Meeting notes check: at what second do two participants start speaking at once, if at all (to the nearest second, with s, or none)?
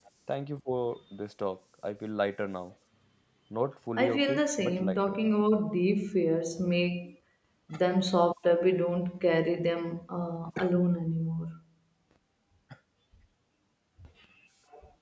4 s